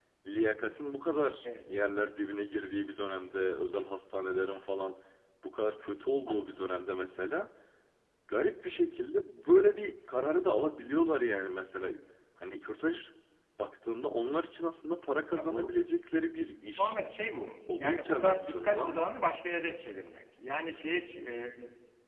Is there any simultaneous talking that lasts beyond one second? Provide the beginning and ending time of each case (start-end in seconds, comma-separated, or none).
17.7-19.0